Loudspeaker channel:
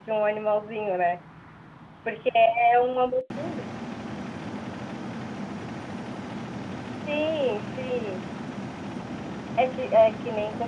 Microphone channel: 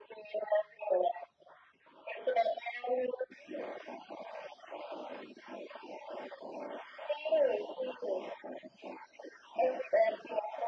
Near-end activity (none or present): none